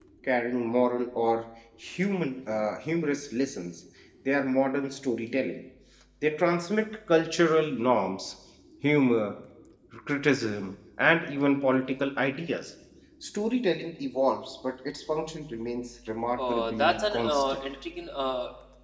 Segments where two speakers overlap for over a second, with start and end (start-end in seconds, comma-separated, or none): 16.4-17.6